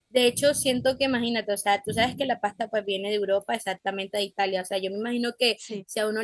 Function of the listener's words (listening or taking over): listening